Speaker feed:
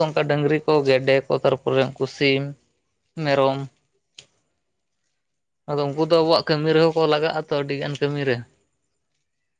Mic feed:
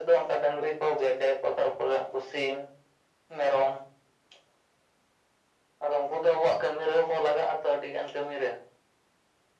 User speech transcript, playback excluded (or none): none